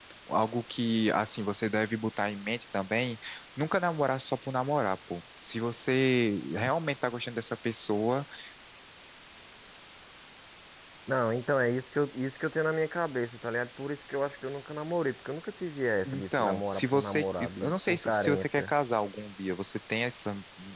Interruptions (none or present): present